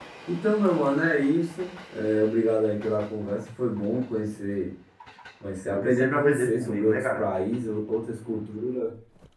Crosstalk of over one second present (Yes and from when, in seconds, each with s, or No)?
Yes, from 5.7 s